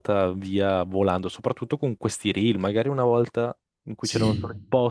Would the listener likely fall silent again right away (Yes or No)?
Yes